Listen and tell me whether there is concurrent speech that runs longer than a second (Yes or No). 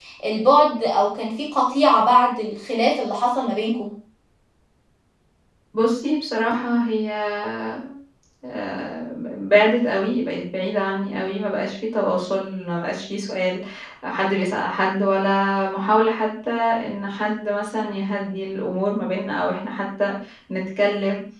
No